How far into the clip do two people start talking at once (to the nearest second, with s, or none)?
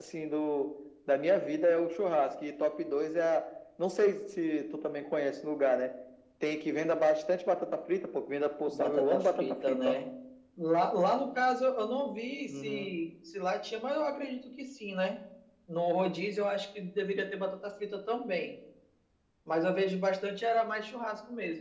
9 s